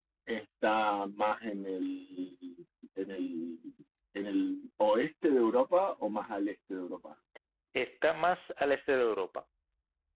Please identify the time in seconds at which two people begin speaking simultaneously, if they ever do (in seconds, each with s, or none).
none